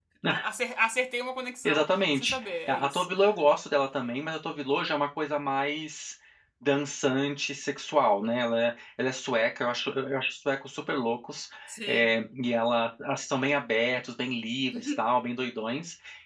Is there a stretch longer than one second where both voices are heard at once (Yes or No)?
Yes